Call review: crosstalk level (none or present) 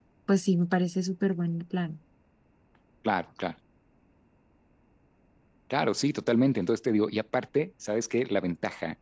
none